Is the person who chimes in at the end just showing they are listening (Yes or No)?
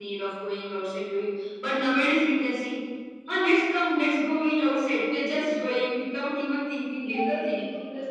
No